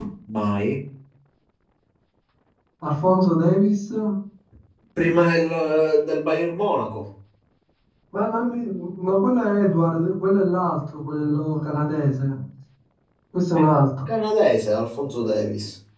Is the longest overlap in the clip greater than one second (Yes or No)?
No